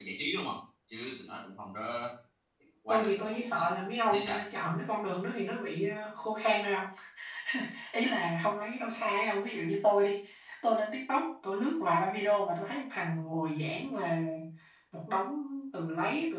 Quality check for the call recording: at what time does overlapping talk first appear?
3 s

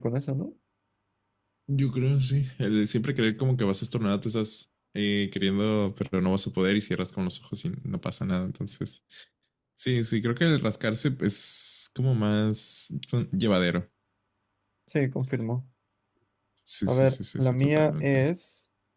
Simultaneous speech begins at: 17 s

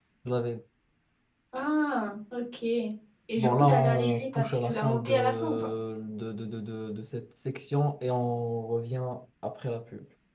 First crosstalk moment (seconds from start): 3 s

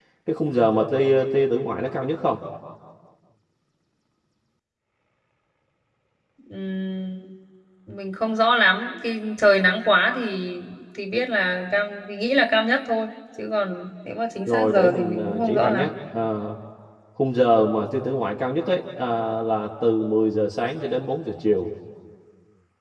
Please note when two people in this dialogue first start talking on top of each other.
14 s

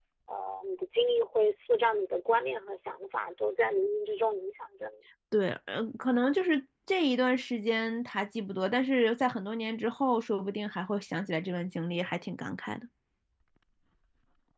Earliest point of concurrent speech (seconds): none

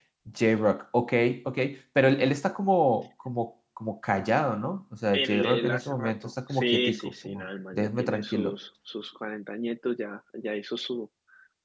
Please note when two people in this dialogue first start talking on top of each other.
5 s

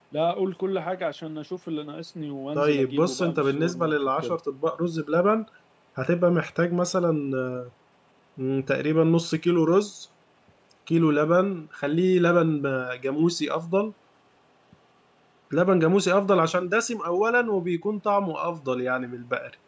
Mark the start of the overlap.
3 s

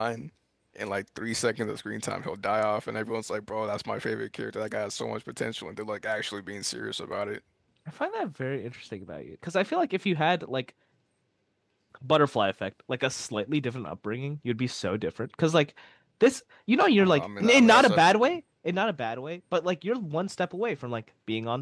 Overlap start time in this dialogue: 17 s

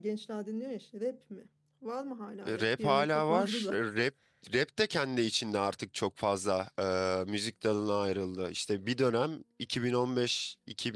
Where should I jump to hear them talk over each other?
2 s

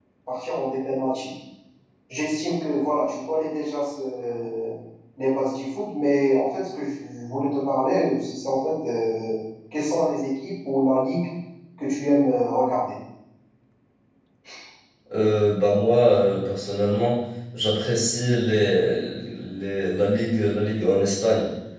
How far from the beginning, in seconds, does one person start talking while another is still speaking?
none

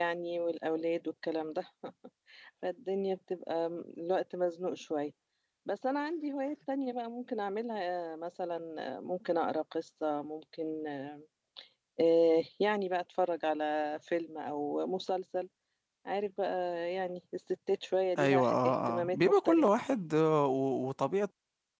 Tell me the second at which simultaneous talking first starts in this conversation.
18 s

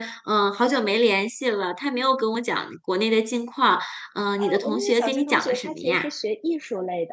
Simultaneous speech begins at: 4 s

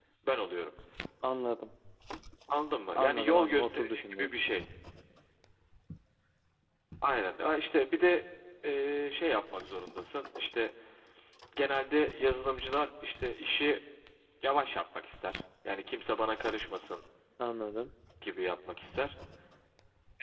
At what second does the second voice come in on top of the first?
3 s

